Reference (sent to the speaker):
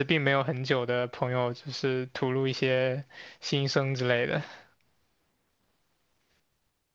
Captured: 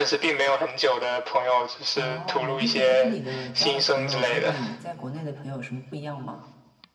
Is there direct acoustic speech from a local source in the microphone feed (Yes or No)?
Yes